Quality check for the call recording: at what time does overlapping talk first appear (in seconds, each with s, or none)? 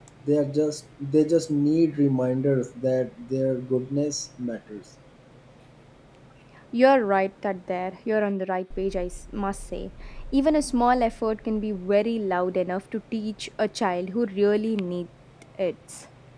none